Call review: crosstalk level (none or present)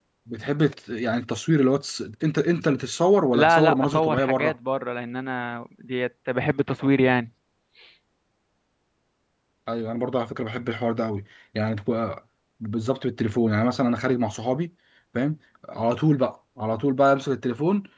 present